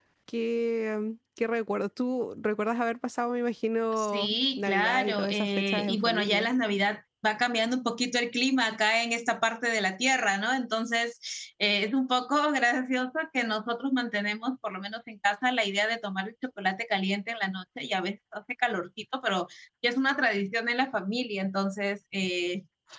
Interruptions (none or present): present